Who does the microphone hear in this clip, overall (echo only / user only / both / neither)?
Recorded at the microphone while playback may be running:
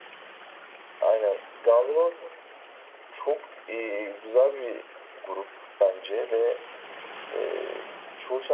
echo only